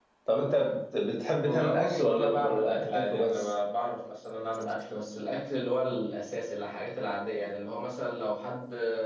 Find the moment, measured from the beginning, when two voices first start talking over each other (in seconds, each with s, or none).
1.4 s